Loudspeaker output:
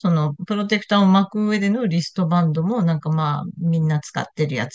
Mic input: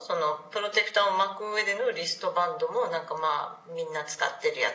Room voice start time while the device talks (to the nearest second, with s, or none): none